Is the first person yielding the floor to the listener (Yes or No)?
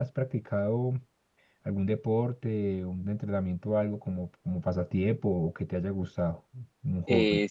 Yes